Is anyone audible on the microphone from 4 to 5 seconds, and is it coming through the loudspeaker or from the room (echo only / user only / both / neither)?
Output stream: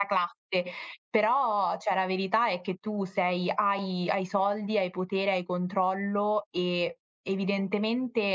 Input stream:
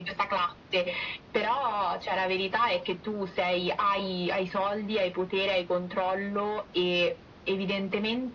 echo only